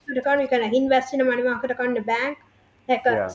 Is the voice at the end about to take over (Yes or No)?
No